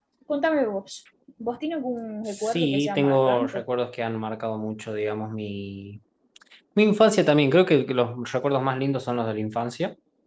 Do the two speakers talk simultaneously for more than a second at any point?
Yes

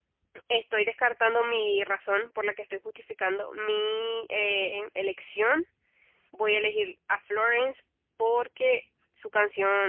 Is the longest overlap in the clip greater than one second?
No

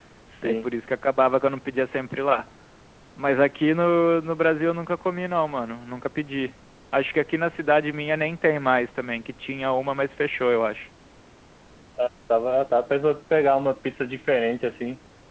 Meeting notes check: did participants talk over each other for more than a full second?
No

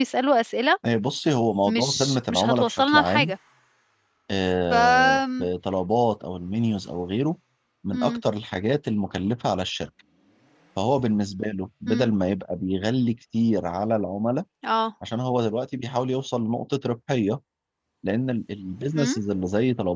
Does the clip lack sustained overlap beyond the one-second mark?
No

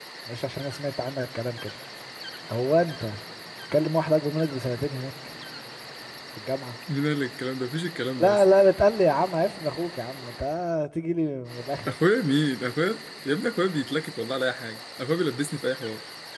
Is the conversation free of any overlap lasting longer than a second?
Yes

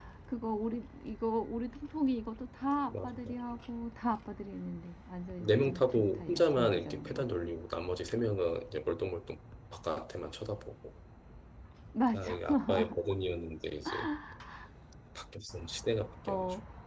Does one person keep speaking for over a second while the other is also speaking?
Yes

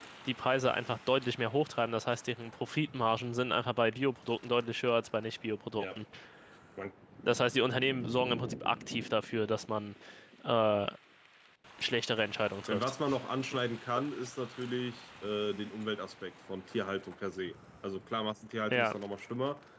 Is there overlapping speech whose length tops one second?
No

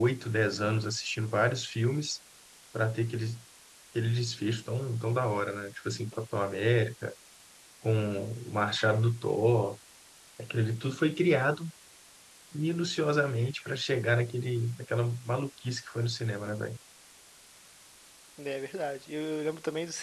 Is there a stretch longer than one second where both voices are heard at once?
No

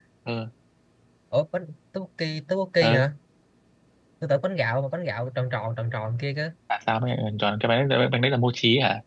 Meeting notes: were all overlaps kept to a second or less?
Yes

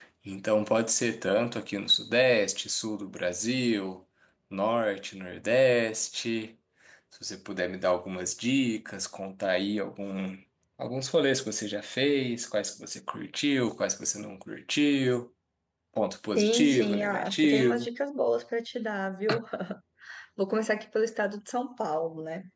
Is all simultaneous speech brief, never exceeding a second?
No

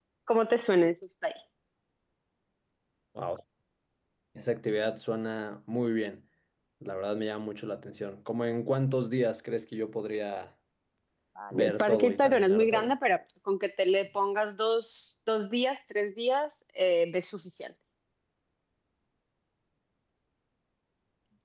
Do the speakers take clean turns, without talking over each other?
No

